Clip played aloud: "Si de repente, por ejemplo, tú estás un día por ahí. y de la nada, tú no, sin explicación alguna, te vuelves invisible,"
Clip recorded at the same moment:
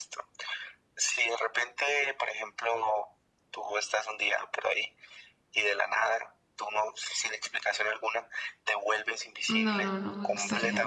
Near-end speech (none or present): present